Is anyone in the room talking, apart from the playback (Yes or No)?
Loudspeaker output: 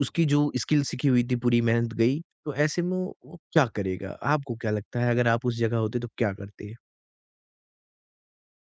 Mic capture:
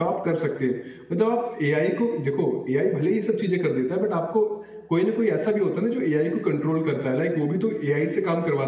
Yes